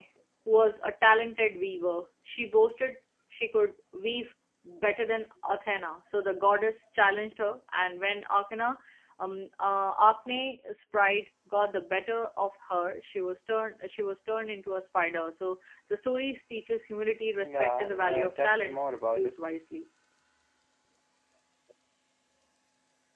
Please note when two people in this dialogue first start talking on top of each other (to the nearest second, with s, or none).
17 s